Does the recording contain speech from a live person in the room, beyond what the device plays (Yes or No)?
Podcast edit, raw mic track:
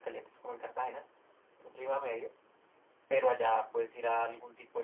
No